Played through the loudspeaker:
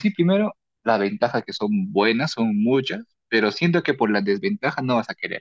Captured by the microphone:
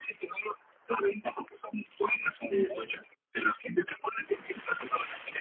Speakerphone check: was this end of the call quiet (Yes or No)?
No